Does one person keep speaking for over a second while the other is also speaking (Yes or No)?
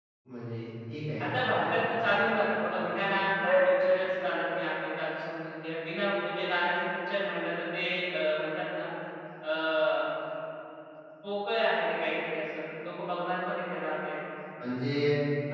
No